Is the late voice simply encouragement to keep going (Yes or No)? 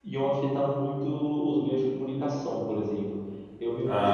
Yes